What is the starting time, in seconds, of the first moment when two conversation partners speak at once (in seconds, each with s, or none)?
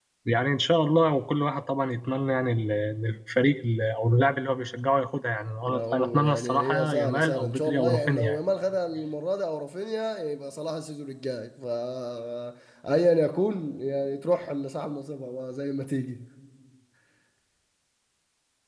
5.6 s